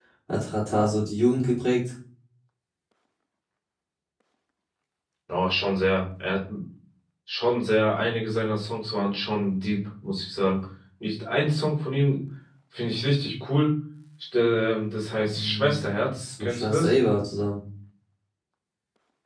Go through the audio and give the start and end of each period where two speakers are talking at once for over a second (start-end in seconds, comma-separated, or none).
15.3-16.9